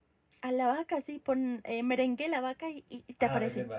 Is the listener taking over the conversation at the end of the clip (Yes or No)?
Yes